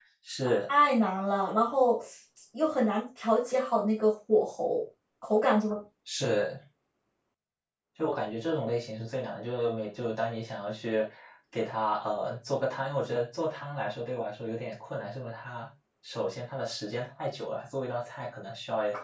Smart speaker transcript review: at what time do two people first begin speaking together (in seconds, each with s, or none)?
none